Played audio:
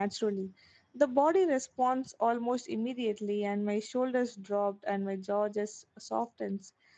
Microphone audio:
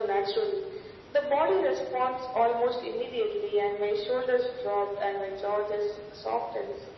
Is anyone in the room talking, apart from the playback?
No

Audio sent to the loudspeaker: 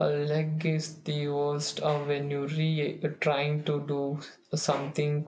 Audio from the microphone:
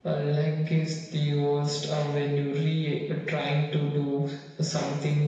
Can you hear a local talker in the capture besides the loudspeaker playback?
No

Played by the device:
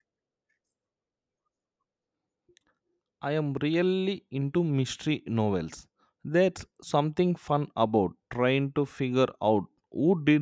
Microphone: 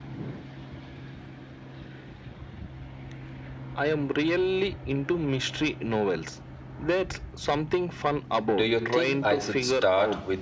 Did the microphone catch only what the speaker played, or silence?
No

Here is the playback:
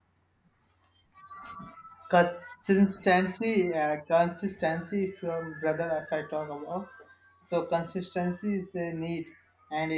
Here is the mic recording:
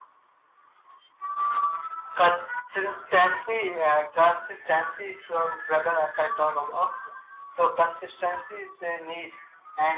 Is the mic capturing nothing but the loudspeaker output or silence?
Yes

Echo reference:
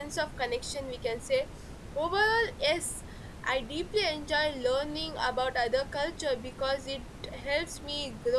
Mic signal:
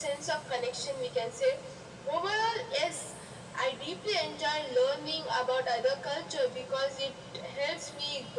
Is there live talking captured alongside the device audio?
No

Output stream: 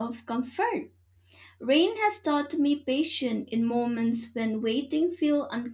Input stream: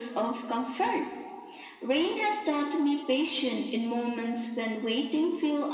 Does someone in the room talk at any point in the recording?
No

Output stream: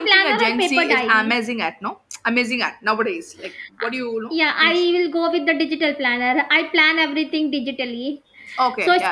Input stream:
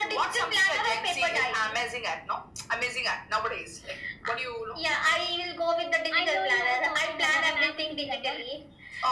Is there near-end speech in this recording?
Yes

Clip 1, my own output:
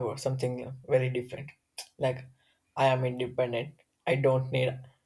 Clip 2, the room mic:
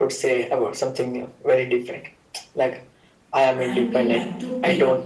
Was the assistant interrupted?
Yes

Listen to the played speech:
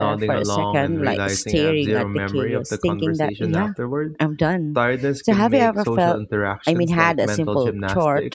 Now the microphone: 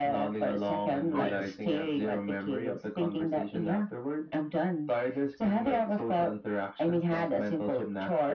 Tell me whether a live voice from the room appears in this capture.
Yes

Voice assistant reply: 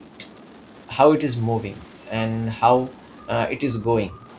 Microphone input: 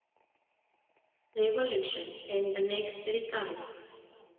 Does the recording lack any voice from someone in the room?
No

